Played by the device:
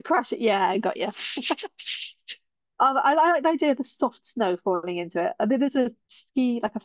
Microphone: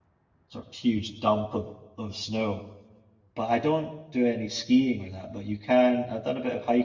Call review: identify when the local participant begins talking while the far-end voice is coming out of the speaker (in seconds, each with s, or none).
0.5 s